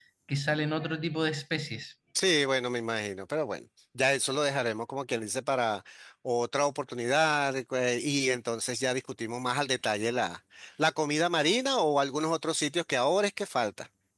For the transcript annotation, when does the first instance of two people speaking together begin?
none

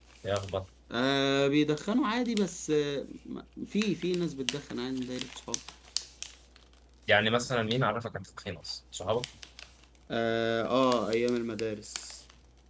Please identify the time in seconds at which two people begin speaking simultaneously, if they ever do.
none

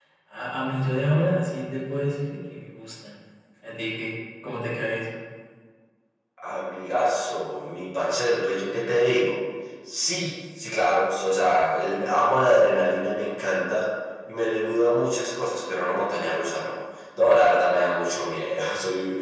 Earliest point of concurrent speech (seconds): none

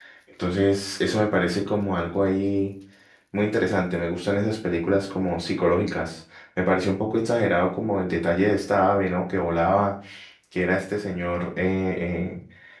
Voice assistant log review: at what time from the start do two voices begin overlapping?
none

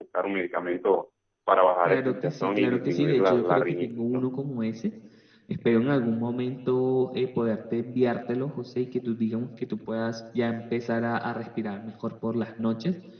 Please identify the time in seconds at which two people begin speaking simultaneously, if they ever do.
2 s

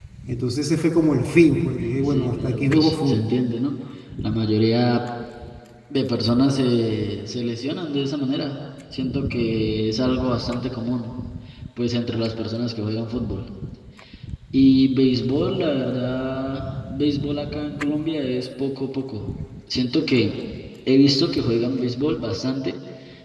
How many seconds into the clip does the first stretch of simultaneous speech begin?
2 s

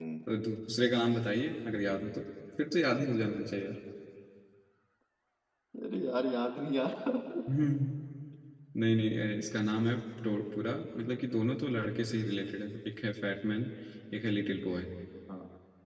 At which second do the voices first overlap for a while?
none

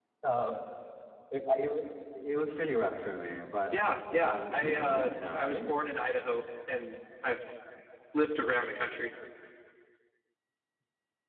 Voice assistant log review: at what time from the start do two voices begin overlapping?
4 s

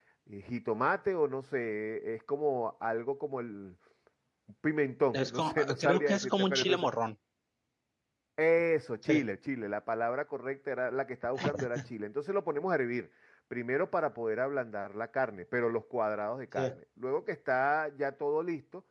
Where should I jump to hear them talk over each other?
5 s

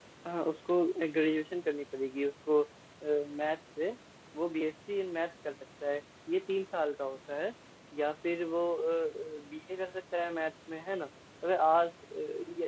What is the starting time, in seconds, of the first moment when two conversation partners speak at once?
none

